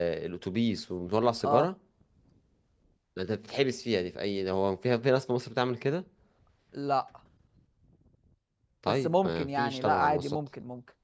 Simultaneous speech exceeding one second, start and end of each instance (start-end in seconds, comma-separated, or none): 9.0-10.4